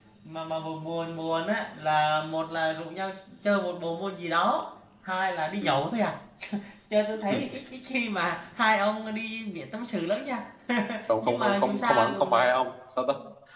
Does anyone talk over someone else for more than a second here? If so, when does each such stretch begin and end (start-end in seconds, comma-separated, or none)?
11.2-12.5